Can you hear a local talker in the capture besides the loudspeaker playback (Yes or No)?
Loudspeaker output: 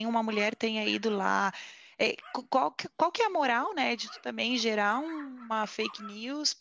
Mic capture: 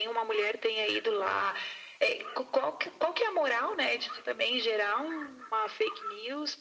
No